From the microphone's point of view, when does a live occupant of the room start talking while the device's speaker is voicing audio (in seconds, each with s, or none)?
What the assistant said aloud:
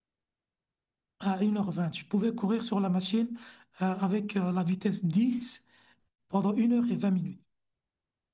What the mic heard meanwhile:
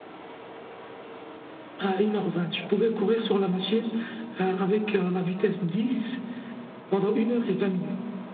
none